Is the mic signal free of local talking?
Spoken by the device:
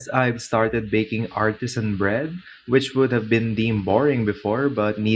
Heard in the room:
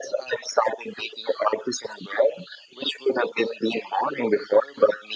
Yes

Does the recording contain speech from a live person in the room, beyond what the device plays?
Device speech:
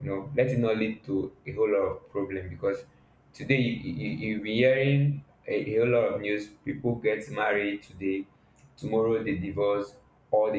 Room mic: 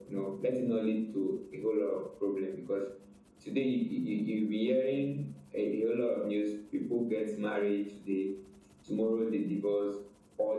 No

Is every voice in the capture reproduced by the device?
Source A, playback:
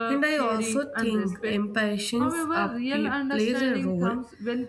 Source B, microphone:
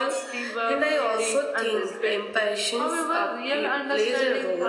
Yes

